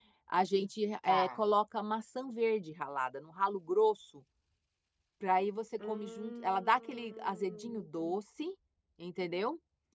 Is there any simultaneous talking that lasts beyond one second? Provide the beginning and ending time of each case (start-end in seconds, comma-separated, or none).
5.8-8.1